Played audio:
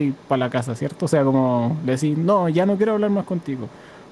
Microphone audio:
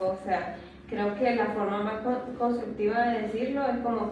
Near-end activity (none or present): present